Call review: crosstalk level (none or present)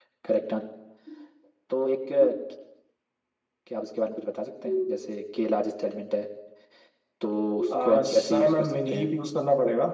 present